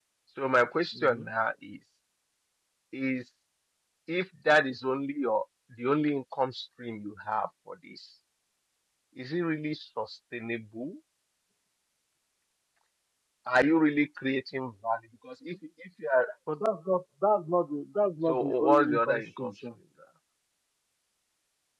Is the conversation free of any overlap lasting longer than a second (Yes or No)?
No